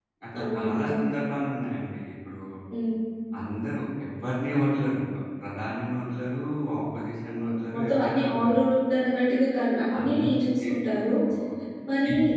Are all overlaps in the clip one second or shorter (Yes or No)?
No